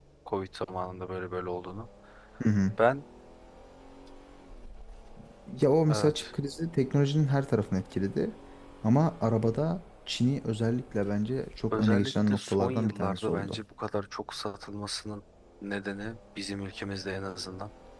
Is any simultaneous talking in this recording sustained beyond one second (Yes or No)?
Yes